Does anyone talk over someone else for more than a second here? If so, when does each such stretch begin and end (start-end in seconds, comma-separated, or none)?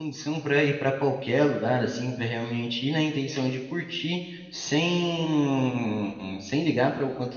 none